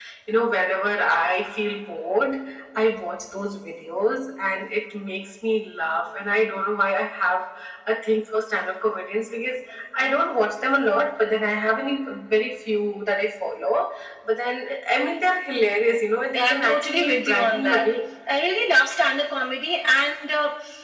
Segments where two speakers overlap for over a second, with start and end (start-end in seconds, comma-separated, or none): 16.3-17.8